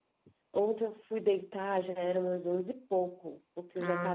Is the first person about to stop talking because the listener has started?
No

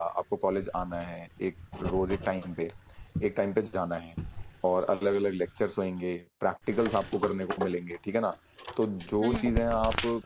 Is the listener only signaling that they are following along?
Yes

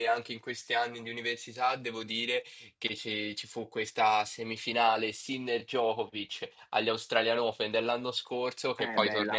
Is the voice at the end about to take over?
No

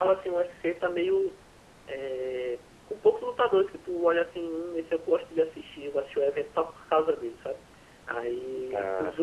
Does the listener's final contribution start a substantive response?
No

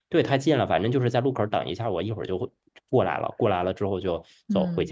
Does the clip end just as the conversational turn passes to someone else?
Yes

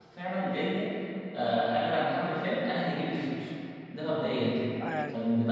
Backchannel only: Yes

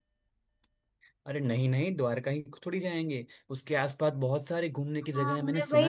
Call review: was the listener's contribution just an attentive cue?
No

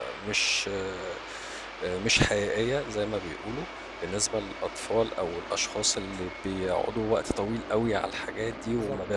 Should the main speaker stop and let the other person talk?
No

